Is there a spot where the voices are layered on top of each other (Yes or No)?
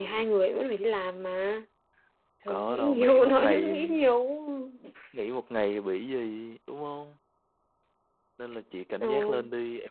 Yes